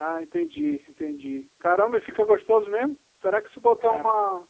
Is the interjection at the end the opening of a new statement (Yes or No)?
No